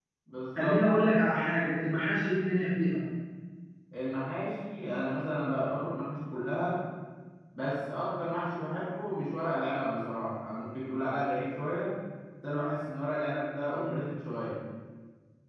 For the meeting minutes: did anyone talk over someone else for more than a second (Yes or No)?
No